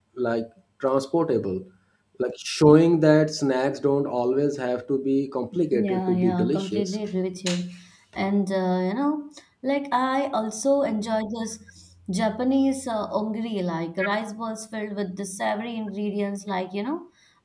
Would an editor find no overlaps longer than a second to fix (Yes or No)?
No